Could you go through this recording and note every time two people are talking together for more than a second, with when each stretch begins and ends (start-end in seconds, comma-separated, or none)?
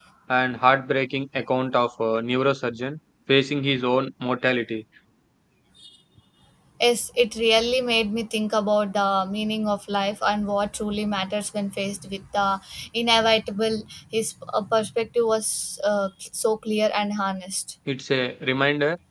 none